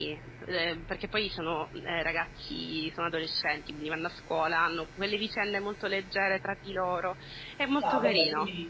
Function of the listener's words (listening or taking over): taking over